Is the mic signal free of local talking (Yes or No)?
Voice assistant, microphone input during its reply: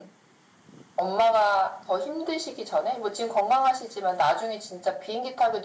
Yes